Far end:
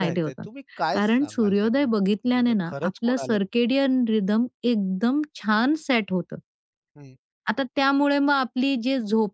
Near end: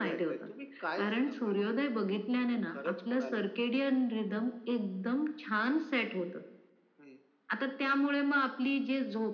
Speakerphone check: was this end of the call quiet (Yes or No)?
Yes